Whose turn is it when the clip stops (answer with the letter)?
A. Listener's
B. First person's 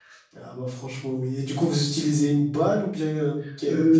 A